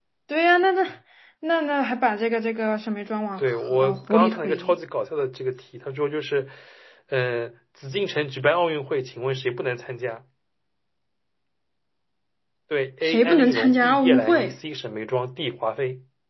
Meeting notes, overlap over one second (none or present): present